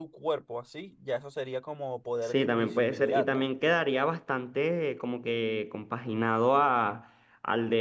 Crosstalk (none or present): present